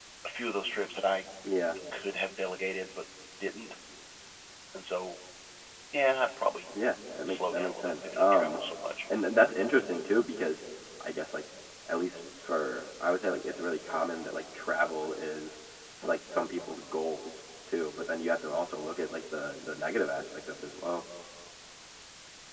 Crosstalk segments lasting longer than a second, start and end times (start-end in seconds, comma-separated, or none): 7.3-8.6